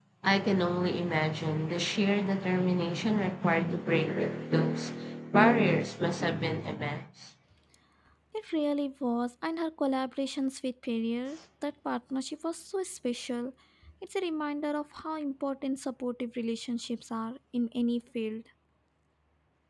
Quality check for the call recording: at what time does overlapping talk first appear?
none

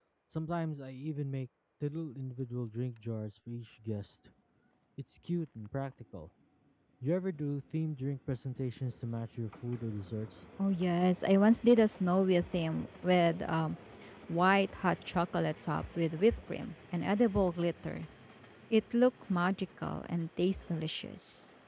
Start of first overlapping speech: none

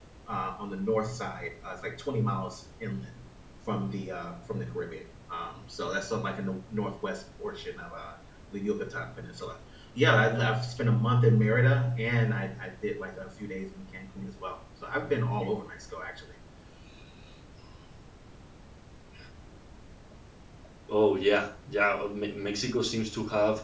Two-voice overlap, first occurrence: none

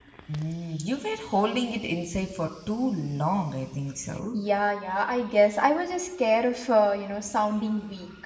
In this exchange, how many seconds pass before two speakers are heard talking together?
none

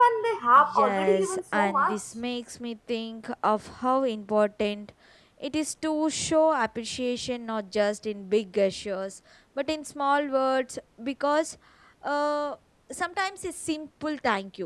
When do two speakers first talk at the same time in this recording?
0.6 s

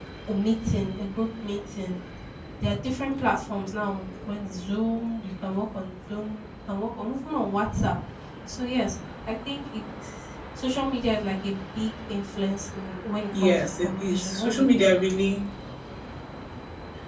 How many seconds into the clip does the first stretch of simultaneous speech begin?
13.4 s

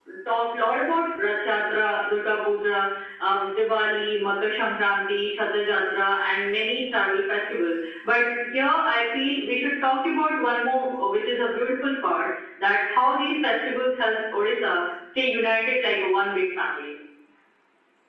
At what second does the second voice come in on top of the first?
none

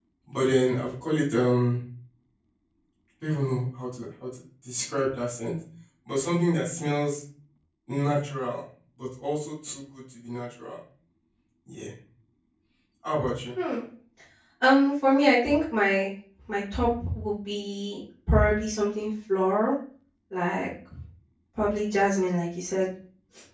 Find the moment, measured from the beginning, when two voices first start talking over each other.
none

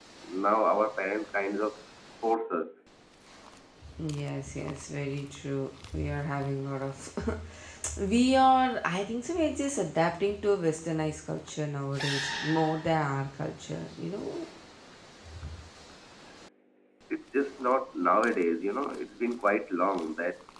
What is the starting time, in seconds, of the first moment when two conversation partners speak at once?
none

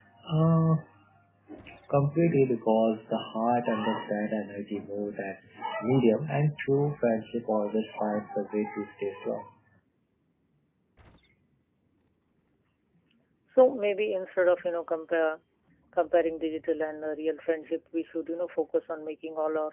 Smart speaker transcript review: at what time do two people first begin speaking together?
none

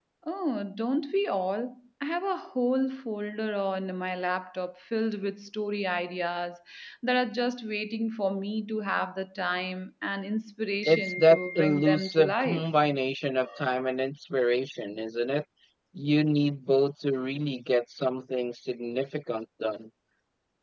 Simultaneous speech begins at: 10.8 s

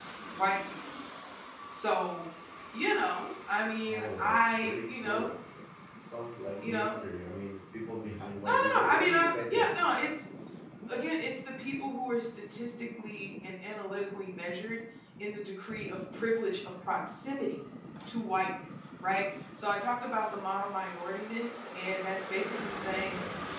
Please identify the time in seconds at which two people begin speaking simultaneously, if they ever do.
3.9 s

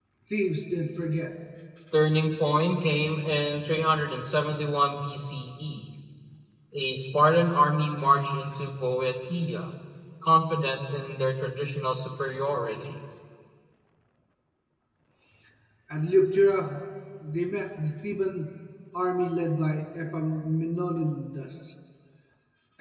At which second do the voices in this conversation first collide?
none

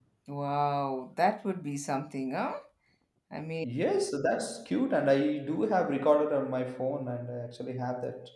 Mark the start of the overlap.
none

